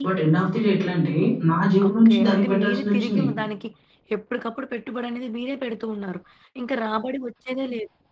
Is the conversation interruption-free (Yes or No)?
No